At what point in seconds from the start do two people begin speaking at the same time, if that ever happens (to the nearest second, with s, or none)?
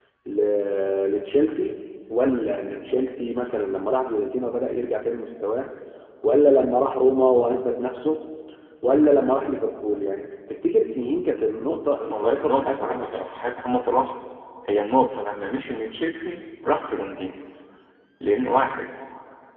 12 s